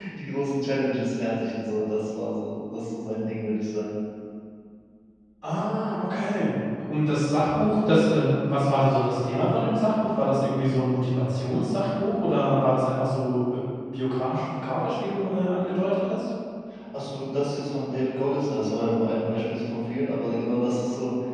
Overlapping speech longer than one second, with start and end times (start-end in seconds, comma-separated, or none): none